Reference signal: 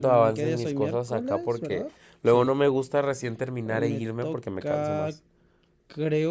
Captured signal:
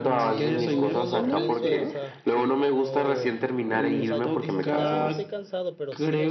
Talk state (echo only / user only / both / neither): both